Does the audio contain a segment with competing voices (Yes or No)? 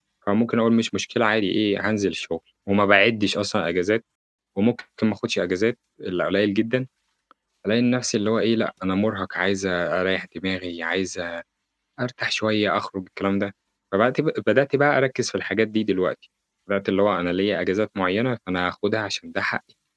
No